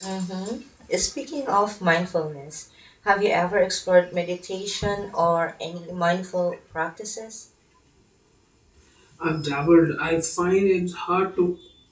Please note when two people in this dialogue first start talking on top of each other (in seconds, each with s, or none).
none